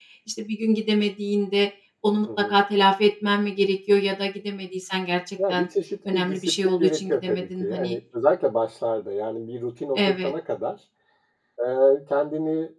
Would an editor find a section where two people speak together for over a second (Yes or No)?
Yes